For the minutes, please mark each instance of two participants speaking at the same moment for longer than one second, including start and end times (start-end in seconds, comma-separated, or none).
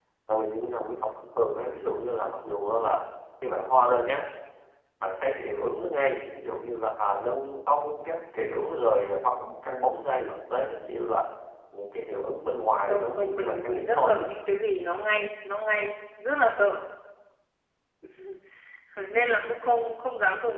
12.9-14.1